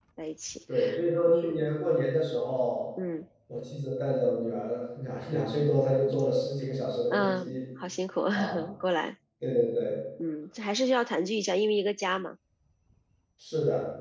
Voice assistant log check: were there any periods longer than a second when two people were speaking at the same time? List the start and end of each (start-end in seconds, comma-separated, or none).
none